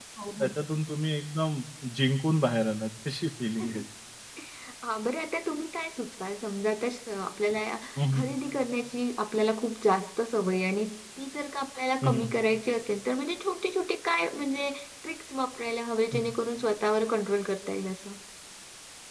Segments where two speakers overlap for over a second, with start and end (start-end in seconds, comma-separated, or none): none